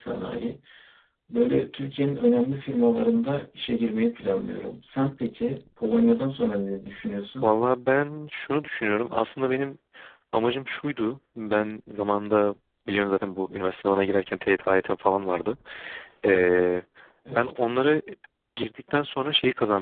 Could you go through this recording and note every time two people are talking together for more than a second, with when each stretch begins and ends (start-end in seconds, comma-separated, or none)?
none